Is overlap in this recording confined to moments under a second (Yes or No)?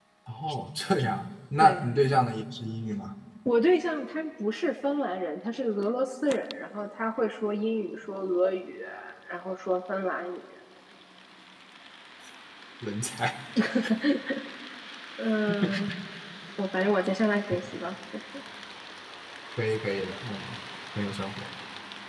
Yes